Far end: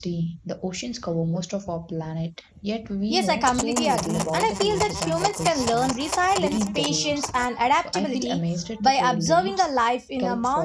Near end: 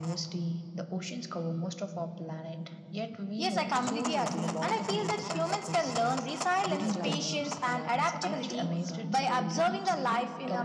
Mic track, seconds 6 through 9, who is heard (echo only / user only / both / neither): both